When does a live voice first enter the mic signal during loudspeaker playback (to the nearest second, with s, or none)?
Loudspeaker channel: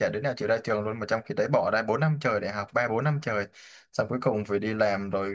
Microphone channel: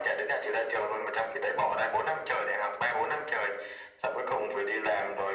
none